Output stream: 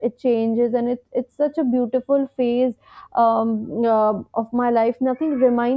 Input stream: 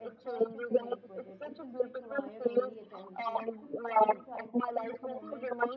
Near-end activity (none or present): present